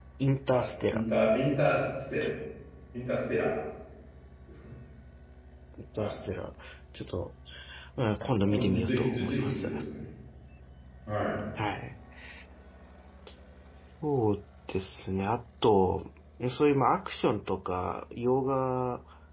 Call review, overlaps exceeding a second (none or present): present